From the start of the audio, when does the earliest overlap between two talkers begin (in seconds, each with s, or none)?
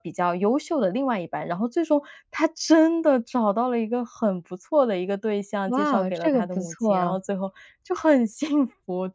5.7 s